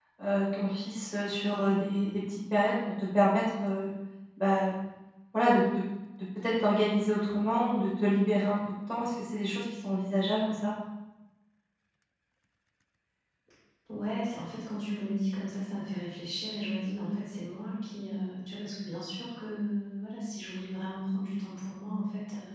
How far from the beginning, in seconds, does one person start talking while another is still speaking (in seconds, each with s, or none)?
none